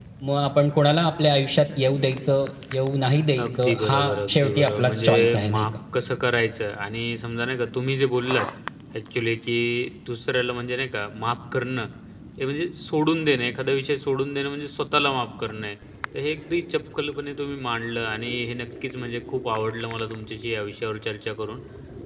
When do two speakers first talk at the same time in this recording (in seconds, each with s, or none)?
3.3 s